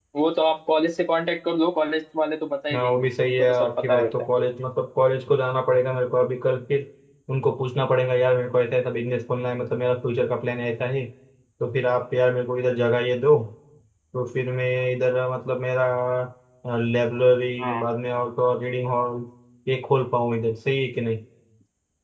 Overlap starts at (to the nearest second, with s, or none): 3 s